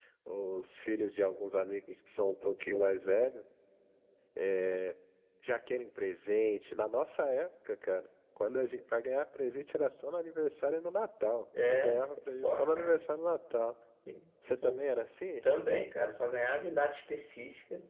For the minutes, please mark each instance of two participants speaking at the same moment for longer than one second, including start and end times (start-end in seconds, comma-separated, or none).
11.7-13.1